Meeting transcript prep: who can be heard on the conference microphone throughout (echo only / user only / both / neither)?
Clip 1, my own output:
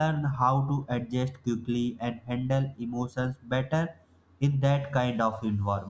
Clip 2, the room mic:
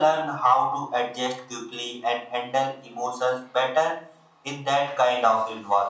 echo only